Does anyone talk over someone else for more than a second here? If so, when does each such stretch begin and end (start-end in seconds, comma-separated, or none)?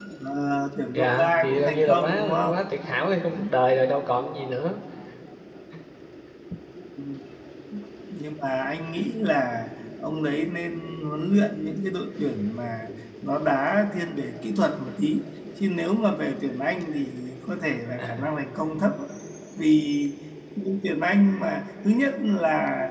0.9-2.5